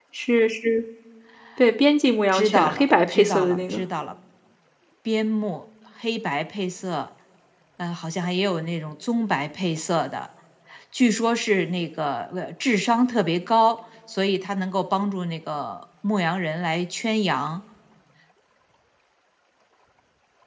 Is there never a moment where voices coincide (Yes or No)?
No